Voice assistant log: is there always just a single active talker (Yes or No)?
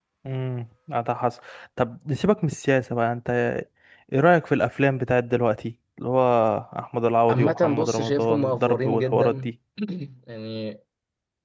No